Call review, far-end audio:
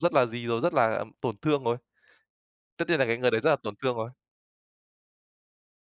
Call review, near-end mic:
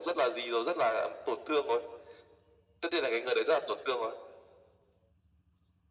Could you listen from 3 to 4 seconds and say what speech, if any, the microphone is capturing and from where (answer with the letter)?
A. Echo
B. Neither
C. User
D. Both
A